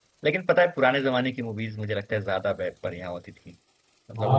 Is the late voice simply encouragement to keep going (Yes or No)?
No